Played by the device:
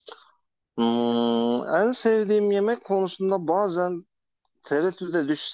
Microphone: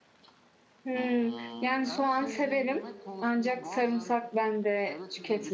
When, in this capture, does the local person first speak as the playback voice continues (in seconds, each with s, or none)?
0.8 s